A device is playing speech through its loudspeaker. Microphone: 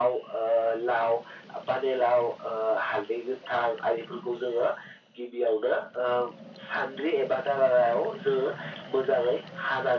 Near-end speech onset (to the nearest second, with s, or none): none